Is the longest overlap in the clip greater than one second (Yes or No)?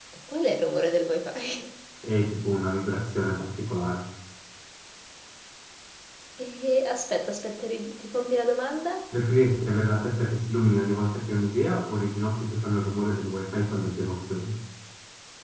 No